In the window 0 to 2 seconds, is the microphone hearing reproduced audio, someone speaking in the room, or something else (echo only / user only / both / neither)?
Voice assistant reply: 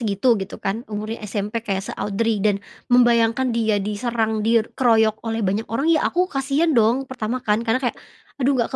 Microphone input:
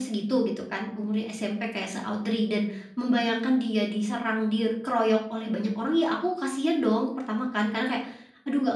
echo only